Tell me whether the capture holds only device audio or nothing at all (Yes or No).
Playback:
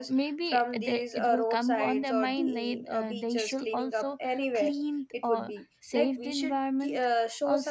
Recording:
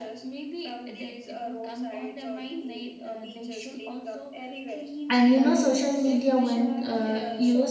No